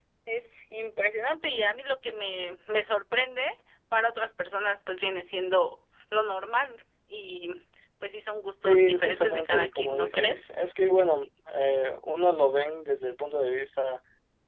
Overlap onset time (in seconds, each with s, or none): 8.6 s